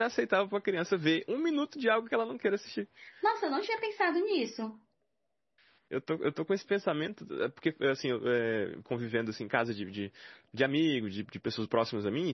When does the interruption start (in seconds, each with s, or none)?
none